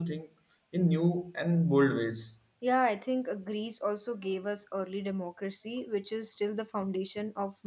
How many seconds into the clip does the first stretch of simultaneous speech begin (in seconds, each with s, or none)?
none